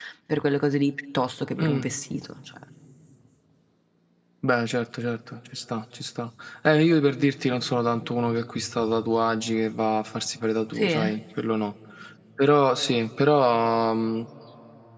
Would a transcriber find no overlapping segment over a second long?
Yes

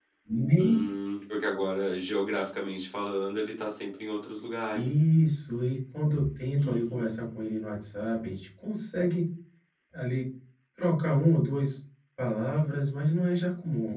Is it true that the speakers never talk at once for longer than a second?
Yes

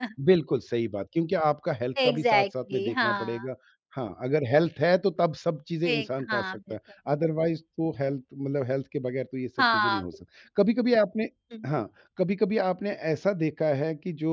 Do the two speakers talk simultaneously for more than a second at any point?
Yes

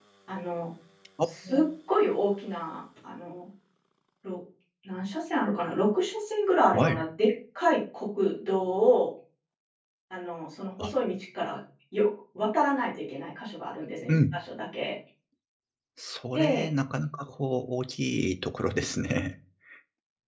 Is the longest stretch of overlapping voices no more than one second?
Yes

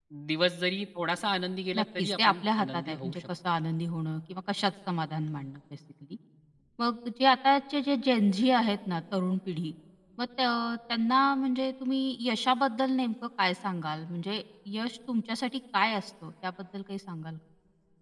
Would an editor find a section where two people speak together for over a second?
Yes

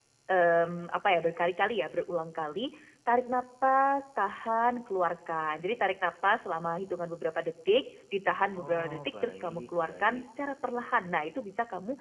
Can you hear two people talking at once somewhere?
Yes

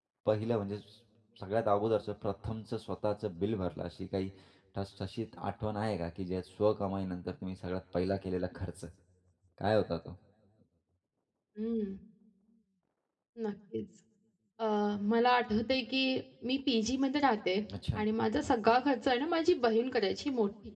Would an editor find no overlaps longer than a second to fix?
Yes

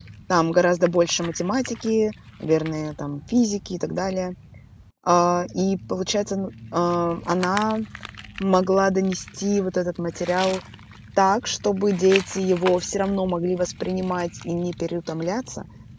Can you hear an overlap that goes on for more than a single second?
No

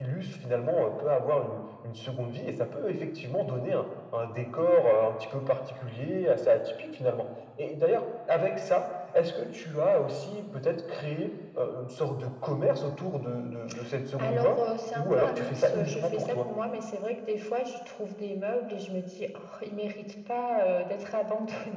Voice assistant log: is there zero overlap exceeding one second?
No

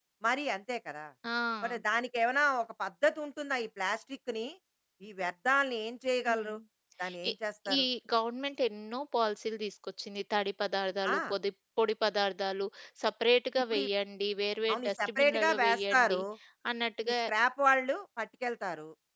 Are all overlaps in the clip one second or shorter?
No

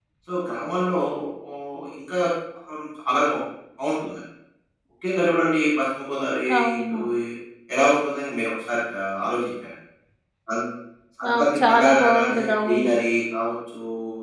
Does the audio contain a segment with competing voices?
Yes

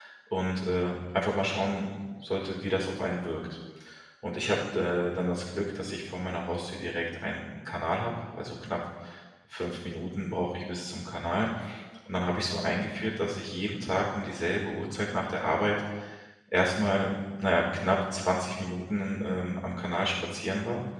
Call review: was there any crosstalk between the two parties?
No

